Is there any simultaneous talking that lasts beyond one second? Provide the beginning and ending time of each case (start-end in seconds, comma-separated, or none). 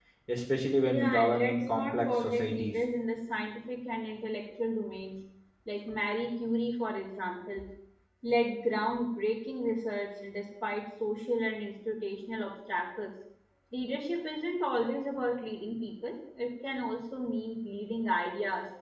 0.8-2.7